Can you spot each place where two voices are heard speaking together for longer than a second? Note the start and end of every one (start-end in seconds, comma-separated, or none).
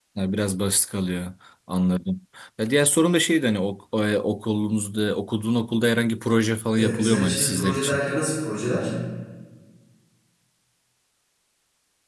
6.8-8.0